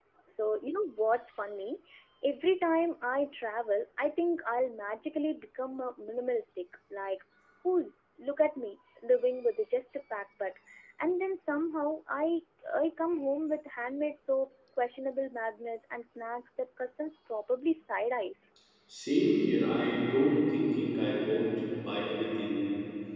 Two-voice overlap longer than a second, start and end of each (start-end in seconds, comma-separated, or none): none